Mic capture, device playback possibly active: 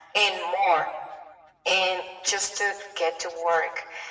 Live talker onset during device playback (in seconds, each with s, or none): none